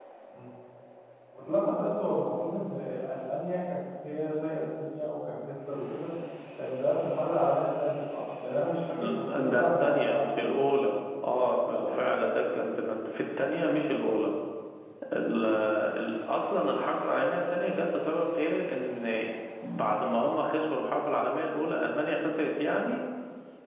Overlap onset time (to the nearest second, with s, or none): 9 s